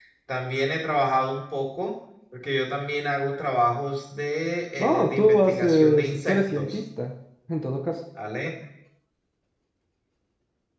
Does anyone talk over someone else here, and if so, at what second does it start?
4.8 s

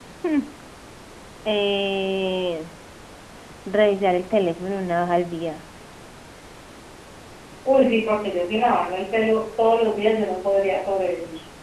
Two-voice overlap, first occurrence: none

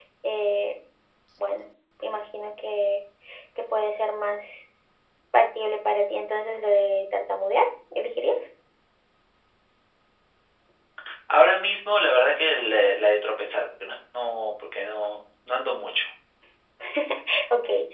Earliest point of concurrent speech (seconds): none

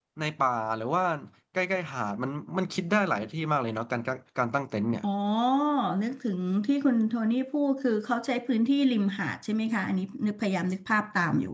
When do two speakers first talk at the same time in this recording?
none

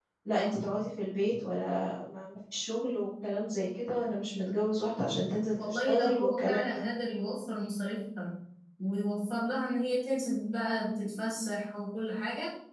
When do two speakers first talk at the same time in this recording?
5.6 s

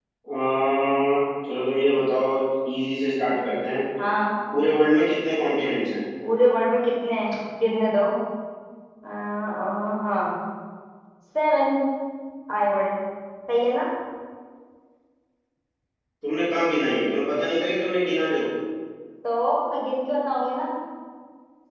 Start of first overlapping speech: none

